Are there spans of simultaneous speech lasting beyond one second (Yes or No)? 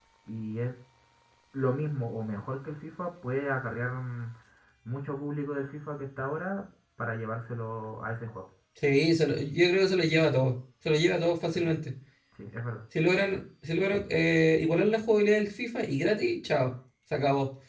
No